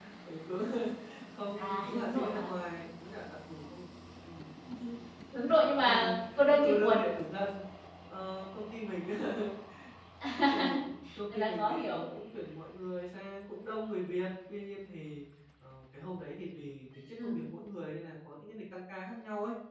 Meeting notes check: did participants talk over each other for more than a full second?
Yes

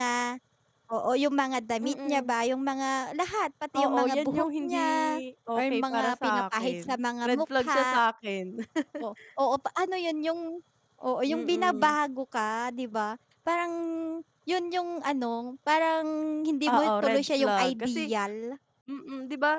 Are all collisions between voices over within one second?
No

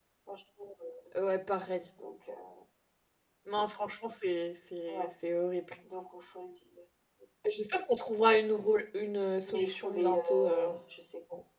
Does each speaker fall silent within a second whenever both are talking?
No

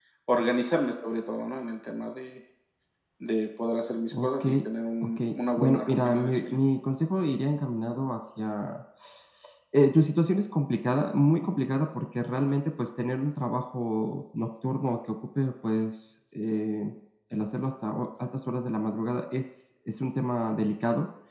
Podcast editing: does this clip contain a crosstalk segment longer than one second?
Yes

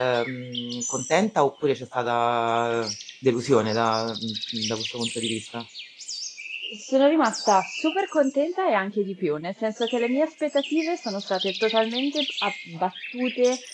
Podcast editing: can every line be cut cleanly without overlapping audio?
Yes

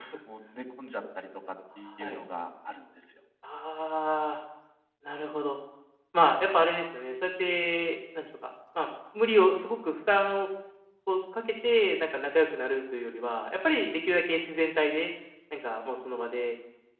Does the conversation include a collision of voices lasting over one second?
No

